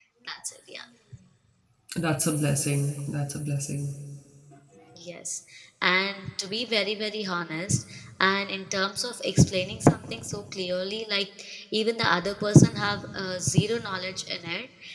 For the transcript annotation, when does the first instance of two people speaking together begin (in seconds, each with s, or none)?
none